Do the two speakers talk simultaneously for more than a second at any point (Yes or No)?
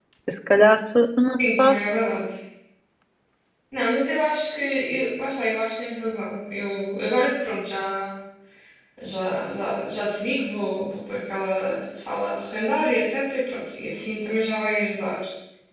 No